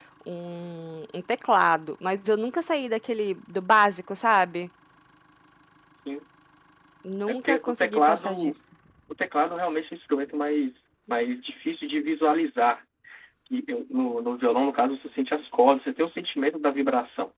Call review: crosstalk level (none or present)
present